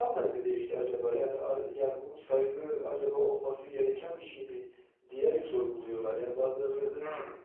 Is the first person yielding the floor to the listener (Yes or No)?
Yes